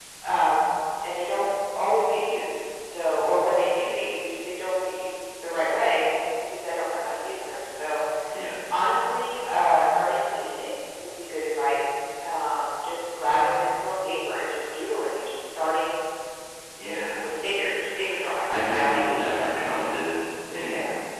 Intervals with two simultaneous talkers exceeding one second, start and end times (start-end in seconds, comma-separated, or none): none